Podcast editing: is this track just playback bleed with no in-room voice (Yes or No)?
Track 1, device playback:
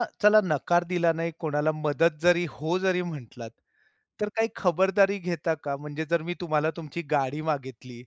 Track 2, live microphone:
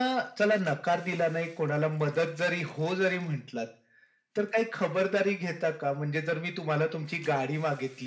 Yes